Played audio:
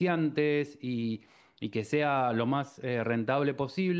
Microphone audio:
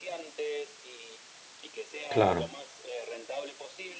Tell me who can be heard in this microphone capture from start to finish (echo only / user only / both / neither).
both